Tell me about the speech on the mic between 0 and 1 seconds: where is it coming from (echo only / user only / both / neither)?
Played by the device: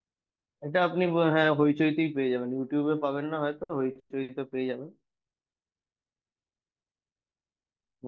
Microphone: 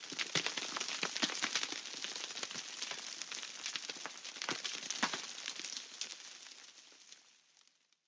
neither